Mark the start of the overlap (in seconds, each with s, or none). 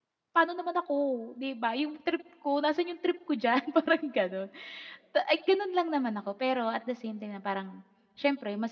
none